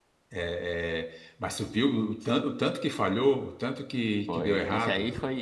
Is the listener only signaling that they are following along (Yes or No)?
No